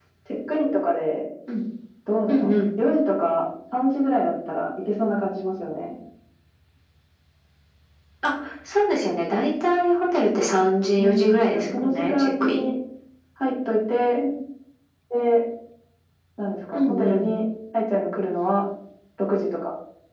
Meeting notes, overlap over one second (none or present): present